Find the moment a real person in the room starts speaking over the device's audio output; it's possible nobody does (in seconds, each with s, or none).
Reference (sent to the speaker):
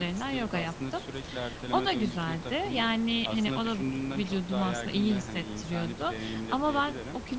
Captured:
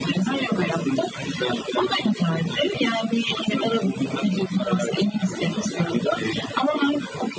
none